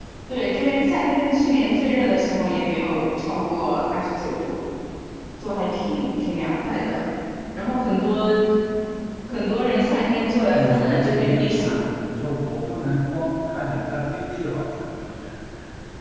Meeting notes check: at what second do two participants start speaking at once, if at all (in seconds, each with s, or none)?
10.5 s